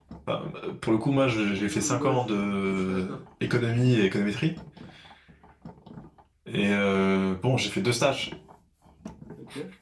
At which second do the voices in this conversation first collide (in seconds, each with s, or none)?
1.7 s